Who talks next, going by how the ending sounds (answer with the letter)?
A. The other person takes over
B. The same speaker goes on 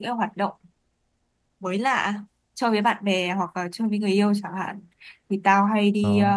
B